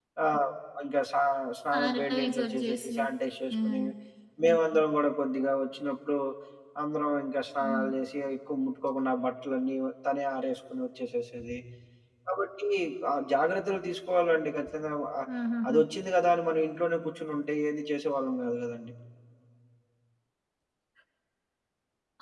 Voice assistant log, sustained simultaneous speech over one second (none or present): present